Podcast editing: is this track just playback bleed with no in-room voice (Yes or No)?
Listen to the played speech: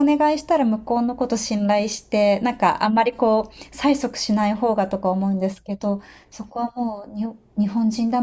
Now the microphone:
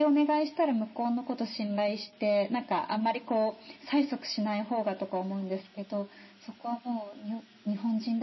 Yes